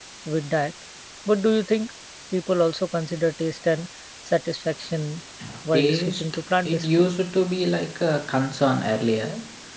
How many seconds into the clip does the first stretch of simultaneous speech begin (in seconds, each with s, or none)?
5.7 s